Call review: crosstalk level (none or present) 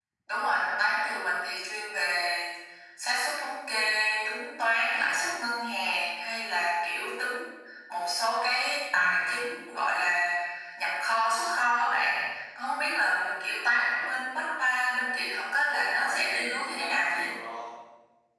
present